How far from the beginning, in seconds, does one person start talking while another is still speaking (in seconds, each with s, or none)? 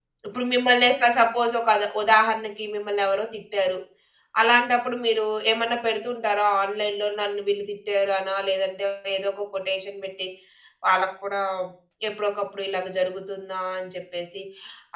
none